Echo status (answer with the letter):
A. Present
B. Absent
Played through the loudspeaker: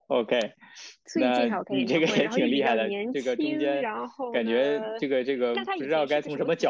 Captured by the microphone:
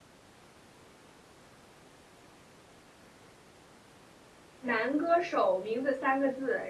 B